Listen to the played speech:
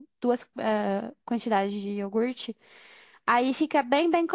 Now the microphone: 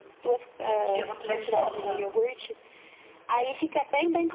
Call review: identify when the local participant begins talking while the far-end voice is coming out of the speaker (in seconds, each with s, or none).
0.6 s